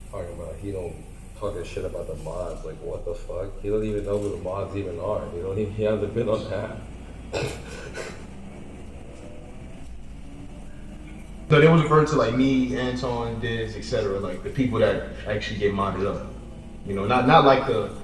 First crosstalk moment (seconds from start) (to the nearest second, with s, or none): none